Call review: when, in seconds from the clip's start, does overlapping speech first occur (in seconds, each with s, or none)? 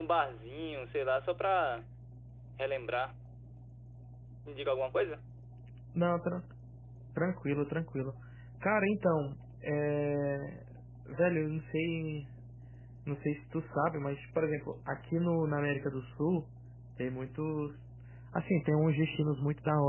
none